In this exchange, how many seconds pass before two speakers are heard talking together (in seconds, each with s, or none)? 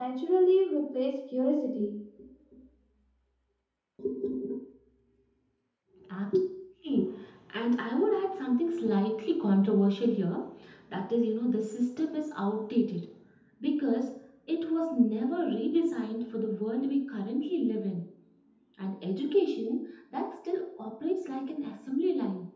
none